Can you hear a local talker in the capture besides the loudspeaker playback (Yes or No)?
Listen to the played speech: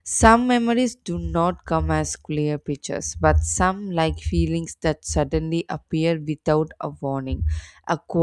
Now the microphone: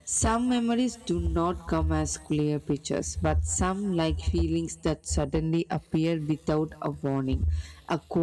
No